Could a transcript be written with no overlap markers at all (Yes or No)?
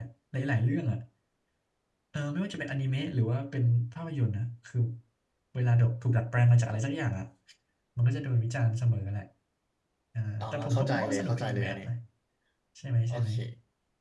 No